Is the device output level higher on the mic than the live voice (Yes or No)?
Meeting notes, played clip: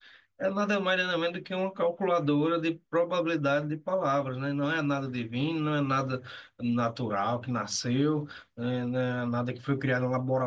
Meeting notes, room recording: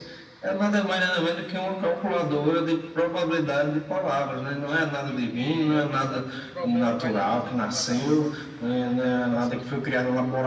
Yes